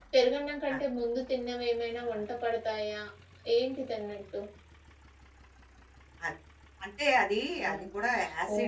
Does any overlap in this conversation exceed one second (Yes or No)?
No